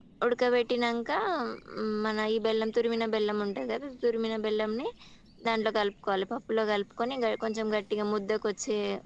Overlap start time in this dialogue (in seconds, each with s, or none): none